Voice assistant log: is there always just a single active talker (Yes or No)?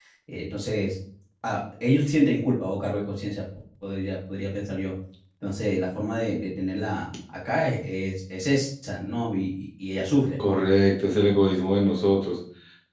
Yes